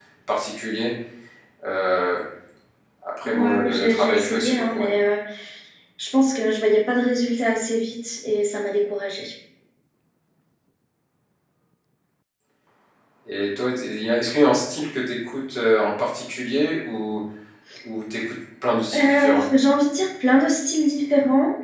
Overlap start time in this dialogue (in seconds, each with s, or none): 3.2 s